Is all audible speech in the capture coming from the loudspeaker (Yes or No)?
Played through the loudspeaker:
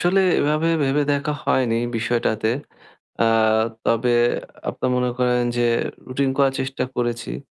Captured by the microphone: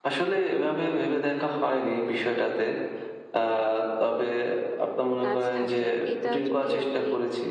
No